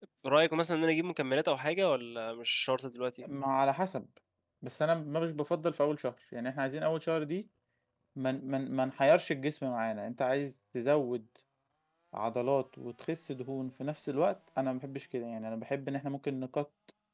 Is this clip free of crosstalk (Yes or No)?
Yes